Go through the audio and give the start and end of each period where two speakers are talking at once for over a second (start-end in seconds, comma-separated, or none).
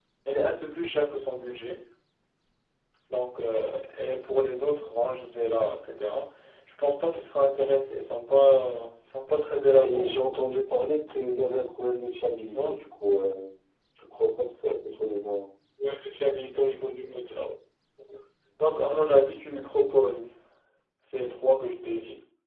none